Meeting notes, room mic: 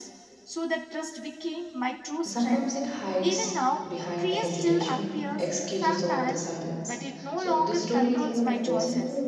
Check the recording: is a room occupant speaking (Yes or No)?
Yes